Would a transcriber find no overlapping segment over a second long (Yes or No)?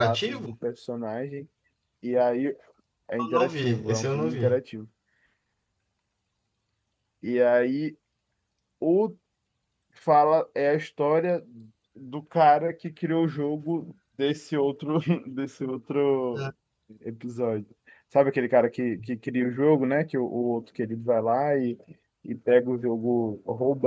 No